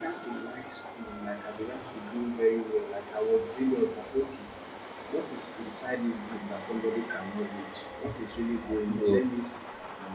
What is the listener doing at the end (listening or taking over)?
listening